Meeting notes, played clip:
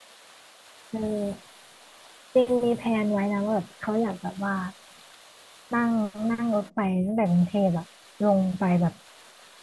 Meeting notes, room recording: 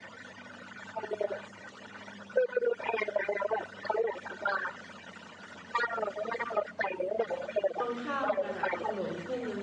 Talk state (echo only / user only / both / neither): both